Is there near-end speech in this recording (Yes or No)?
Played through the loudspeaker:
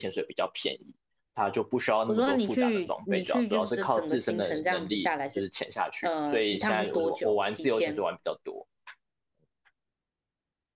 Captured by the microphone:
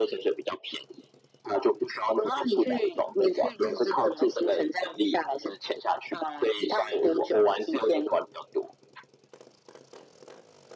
No